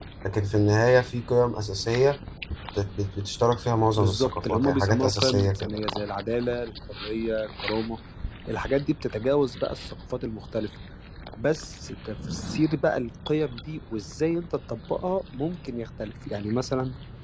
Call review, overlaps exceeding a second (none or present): present